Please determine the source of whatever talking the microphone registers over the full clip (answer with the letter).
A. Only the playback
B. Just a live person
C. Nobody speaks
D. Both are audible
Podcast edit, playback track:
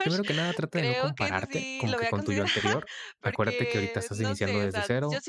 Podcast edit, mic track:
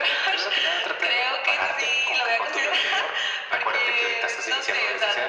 A